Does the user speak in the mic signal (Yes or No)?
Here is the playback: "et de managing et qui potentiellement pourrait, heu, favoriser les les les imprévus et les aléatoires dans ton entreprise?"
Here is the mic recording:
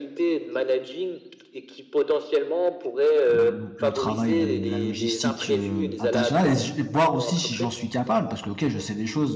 Yes